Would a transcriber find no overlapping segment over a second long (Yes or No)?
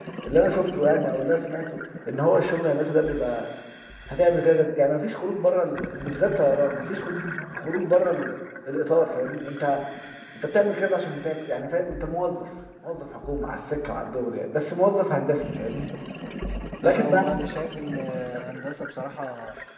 Yes